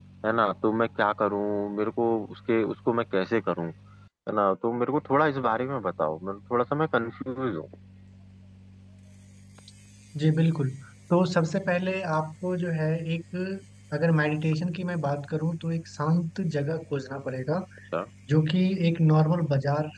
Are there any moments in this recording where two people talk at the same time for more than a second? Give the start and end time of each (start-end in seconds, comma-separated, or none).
none